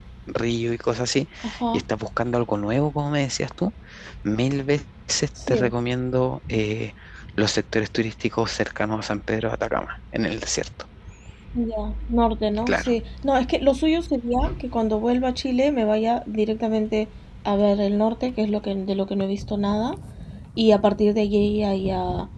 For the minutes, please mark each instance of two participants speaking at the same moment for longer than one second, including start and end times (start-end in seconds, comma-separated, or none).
none